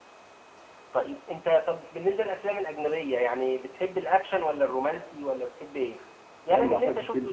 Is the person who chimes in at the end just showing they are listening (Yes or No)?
No